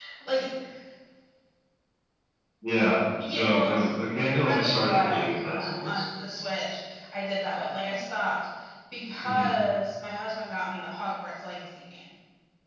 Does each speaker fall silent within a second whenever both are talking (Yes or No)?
No